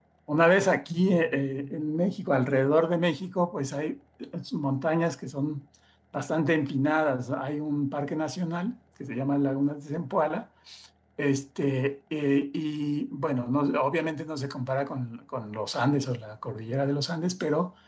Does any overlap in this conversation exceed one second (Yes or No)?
No